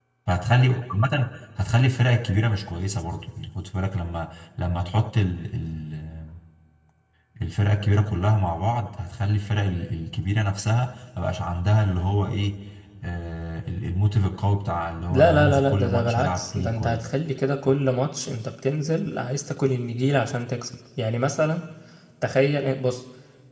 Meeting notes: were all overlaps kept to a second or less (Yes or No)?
No